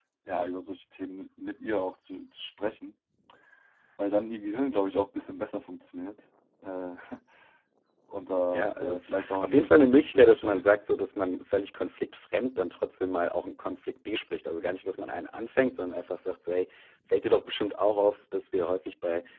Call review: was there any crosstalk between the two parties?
Yes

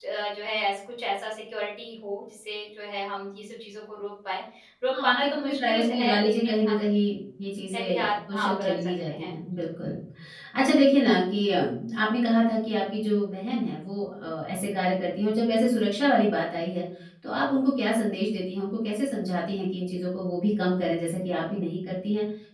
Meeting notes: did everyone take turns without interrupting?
No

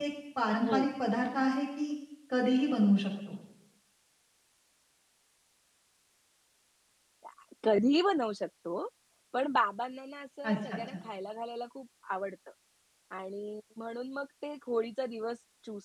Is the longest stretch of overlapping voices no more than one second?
Yes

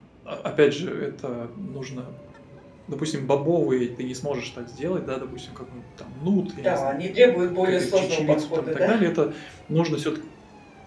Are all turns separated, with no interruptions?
No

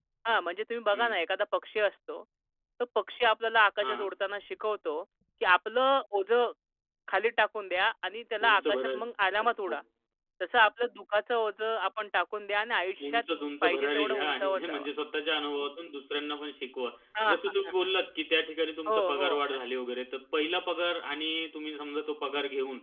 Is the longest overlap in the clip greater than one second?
Yes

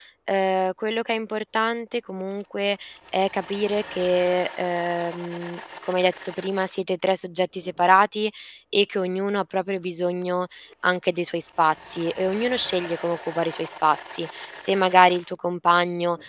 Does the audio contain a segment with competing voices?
No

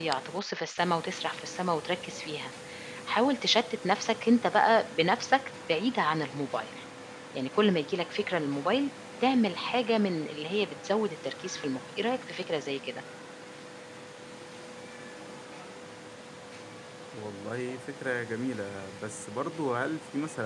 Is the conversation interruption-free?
Yes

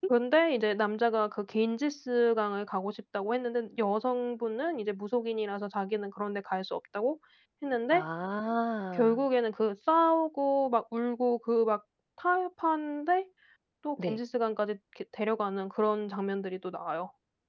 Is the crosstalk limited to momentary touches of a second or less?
Yes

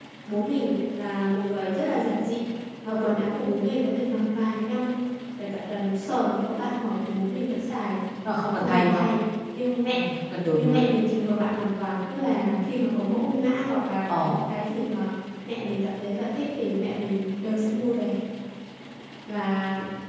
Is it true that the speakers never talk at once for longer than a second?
Yes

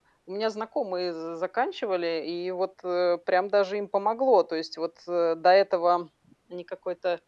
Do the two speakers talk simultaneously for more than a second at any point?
No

